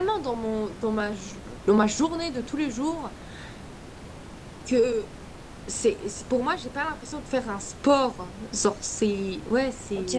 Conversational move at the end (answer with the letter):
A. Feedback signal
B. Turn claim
B